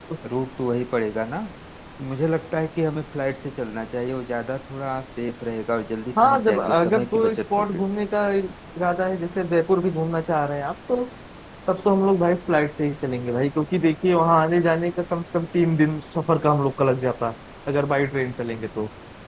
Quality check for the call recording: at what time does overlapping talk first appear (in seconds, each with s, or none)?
6.2 s